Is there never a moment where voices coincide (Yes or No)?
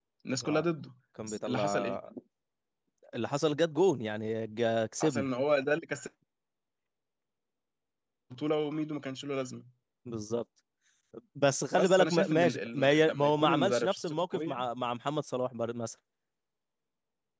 No